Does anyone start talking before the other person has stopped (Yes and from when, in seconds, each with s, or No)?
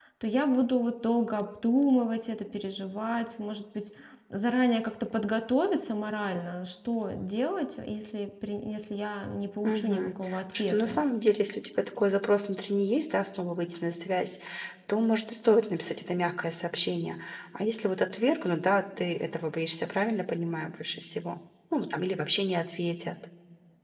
Yes, from 9.6 s